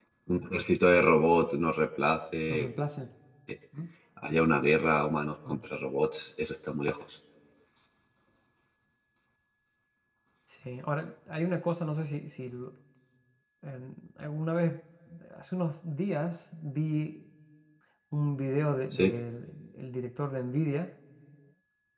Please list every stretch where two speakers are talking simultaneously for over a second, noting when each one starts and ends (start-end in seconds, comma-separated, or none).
none